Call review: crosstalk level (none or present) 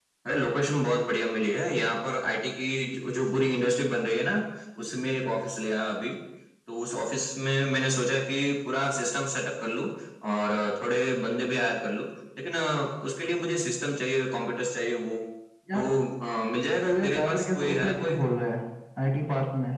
present